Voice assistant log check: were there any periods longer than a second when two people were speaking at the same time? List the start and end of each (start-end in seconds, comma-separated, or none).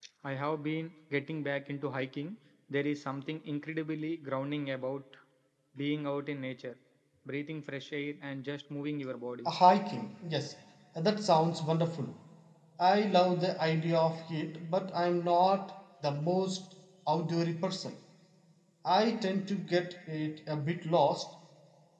none